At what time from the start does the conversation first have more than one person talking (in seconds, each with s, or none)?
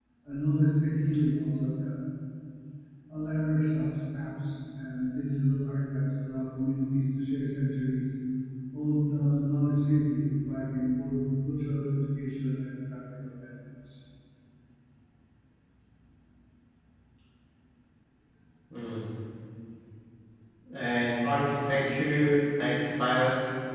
none